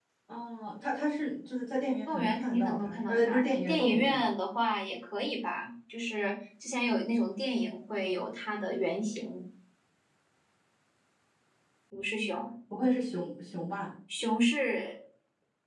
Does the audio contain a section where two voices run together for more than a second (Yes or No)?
Yes